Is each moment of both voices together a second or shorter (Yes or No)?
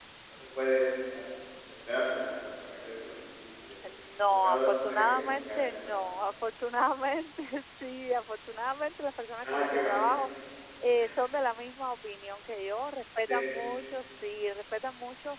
No